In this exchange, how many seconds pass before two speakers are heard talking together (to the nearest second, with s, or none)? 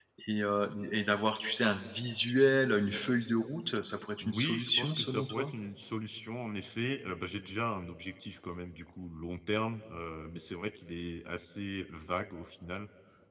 4 s